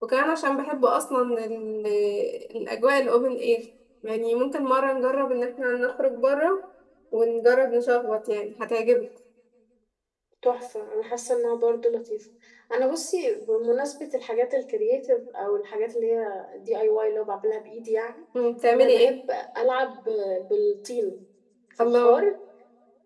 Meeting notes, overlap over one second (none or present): none